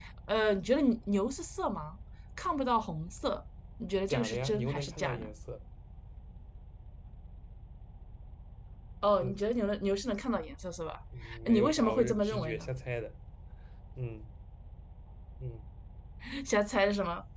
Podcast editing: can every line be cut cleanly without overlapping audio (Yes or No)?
No